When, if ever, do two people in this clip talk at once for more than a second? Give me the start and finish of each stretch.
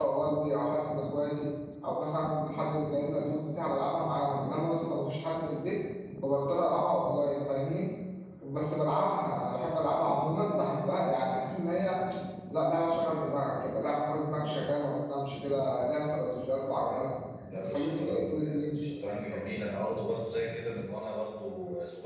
17.6-18.8

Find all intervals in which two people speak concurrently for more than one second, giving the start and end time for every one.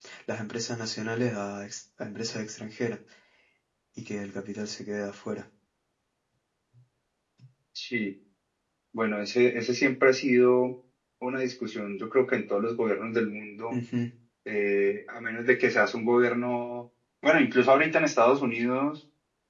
none

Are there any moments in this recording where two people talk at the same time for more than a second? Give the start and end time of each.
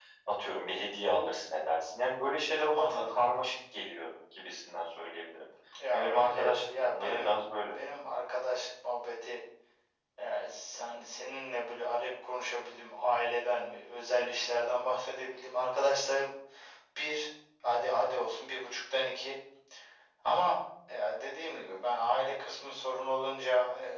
5.9-7.3

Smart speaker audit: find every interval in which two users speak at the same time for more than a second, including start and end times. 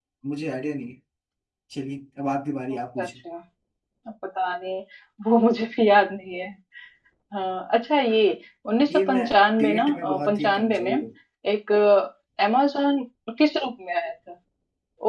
9.6-10.9

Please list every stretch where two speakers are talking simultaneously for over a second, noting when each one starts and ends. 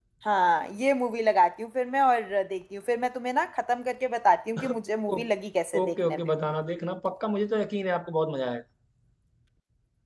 none

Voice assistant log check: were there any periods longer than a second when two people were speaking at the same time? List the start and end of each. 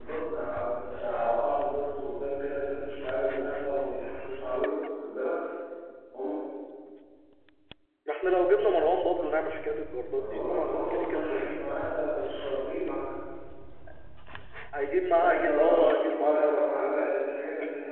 10.1-11.7, 15.2-17.4

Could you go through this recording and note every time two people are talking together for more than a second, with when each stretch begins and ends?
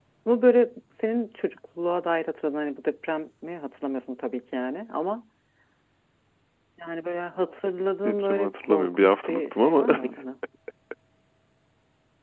8.1-9.9

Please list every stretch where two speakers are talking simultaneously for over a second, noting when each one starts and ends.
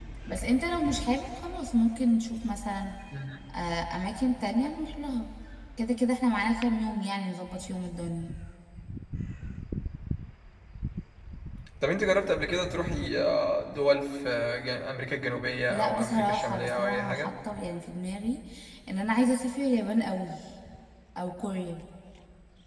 15.7-17.3

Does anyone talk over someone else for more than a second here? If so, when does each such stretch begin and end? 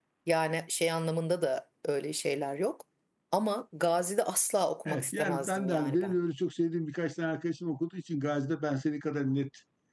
4.9-6.1

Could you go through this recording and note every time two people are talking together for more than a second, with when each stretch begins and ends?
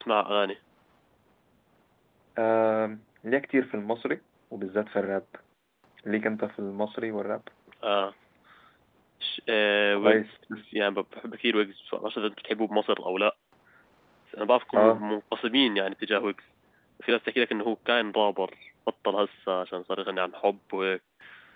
none

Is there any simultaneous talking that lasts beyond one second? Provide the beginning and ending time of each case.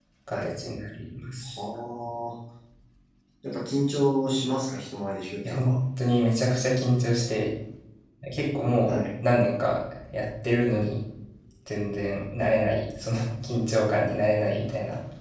none

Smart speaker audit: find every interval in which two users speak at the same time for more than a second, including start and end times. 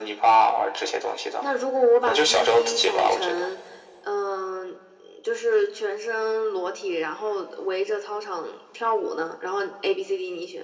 2.1-3.4

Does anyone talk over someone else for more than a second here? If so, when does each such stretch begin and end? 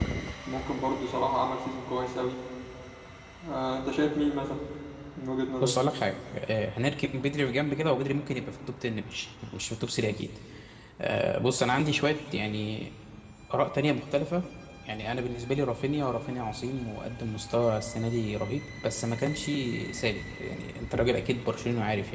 none

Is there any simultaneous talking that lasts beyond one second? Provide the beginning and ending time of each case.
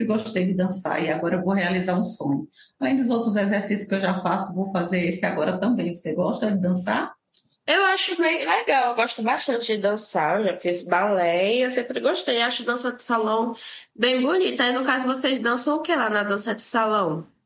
none

